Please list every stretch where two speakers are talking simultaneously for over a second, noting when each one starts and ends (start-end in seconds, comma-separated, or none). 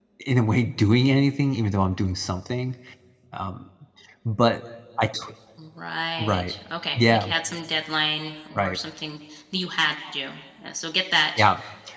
none